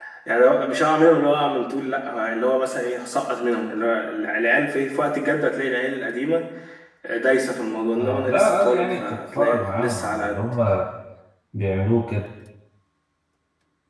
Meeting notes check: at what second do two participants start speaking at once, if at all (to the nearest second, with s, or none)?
8 s